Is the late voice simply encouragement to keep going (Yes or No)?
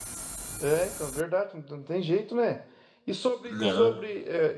Yes